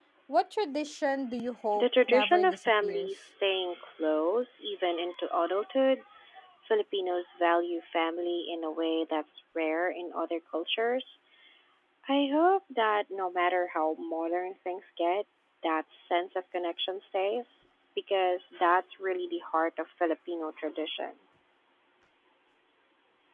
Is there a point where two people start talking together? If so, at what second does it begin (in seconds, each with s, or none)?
1.8 s